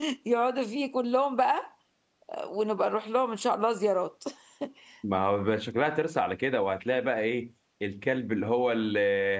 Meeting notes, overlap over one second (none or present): none